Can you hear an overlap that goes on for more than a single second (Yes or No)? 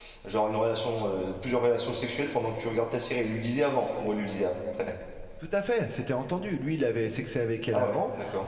No